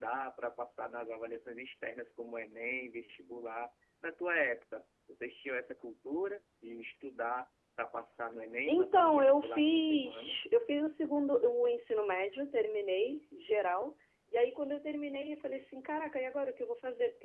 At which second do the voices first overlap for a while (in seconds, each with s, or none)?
8.7 s